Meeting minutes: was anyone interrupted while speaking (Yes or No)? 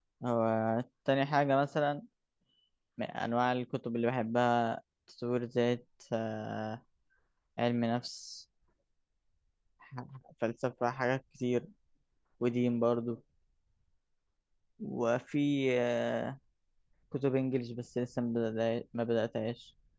No